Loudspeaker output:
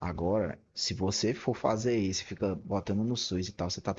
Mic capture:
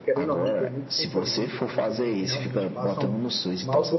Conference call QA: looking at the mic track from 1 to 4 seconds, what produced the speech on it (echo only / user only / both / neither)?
both